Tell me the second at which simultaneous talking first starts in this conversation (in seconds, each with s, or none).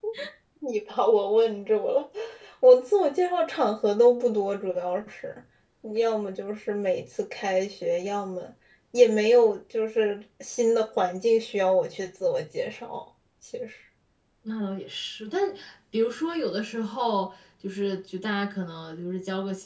none